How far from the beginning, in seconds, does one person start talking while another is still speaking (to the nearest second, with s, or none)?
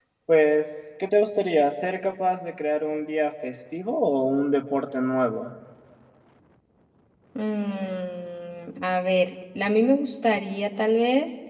none